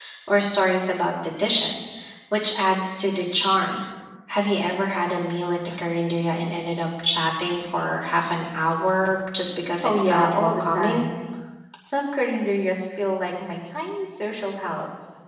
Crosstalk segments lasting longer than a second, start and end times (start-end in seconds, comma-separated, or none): 9.8-11.1